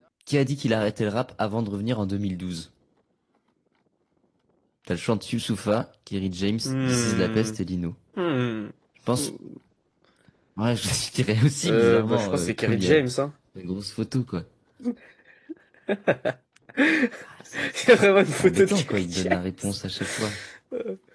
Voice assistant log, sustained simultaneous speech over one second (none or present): present